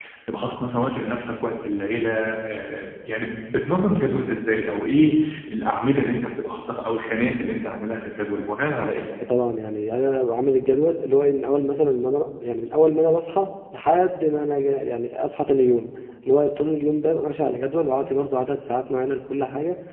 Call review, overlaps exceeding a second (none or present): none